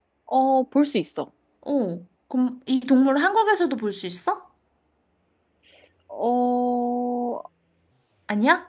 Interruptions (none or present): none